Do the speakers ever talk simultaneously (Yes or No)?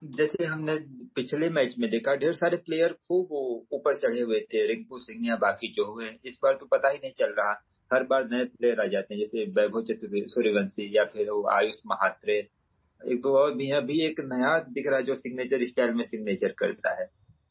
No